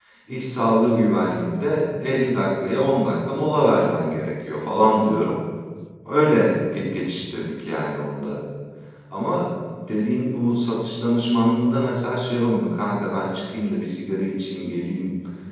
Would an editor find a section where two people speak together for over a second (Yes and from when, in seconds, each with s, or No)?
No